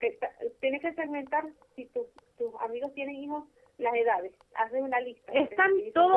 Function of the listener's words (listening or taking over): taking over